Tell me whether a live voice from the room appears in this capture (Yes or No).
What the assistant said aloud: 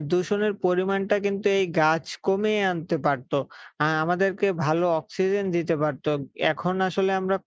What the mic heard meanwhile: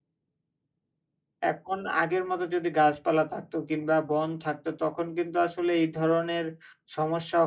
Yes